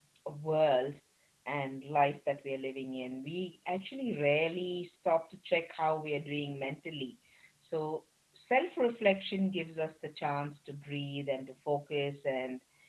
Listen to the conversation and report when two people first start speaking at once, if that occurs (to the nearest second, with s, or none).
none